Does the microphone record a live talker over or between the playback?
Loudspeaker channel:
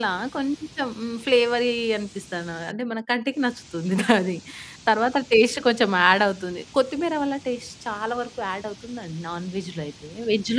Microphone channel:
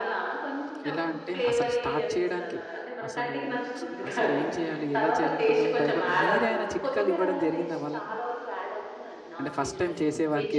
Yes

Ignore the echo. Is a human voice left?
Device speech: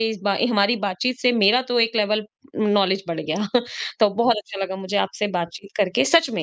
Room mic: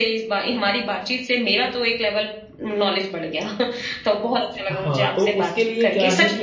Yes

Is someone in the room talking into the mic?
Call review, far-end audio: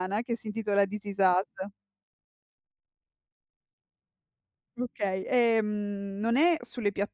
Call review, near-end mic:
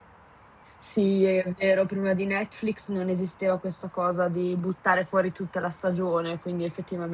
Yes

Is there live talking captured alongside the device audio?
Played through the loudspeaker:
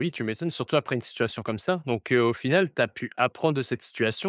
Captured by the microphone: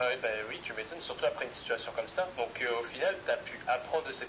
No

